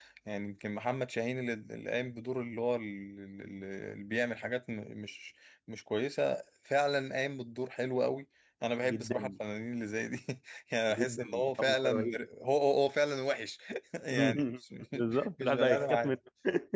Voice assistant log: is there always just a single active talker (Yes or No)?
No